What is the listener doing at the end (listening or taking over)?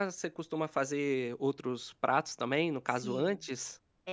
taking over